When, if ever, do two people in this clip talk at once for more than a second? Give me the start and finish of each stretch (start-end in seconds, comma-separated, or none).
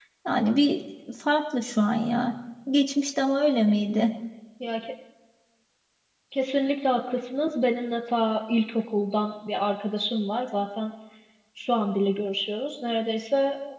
none